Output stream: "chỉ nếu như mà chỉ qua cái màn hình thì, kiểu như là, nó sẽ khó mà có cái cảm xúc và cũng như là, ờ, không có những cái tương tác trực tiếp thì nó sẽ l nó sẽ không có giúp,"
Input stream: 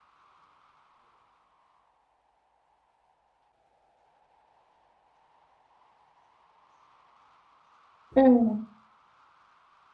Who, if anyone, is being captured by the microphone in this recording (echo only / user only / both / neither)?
user only